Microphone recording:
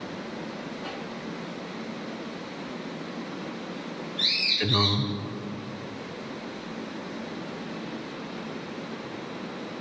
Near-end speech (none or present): present